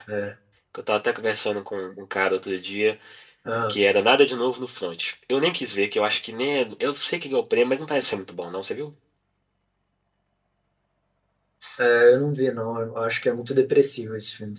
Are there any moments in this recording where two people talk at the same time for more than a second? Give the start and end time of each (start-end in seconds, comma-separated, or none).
none